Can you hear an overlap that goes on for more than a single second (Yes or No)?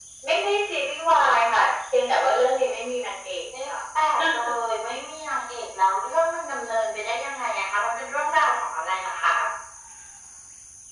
No